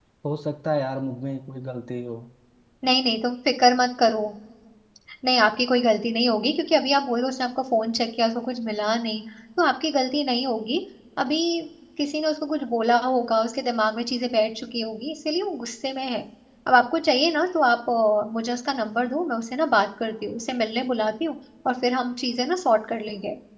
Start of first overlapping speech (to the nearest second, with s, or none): none